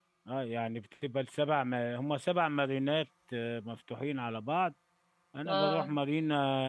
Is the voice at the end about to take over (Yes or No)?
No